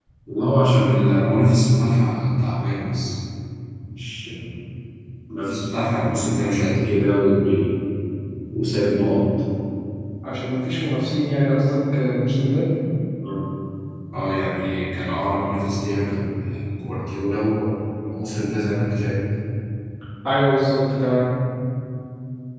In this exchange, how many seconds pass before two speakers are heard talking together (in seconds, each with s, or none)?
none